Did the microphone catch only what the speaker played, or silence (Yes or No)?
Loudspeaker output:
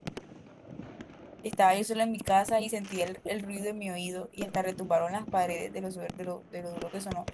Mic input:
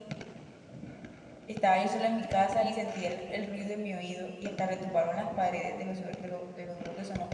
Yes